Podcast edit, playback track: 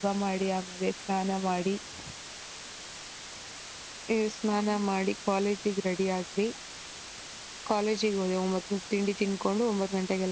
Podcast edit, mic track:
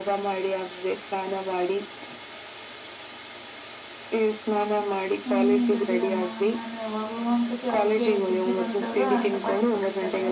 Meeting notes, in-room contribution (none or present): present